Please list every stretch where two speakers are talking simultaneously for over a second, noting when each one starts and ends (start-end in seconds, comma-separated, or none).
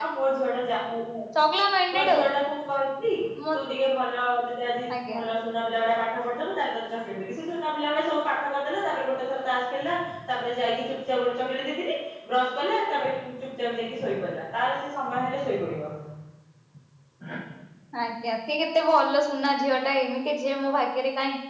none